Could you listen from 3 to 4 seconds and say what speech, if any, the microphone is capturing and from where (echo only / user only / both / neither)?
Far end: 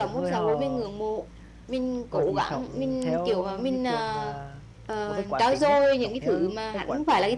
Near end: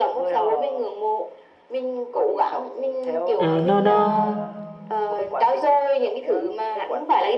both